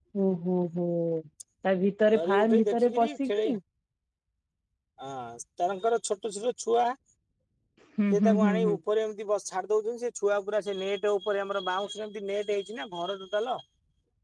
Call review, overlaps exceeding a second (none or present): present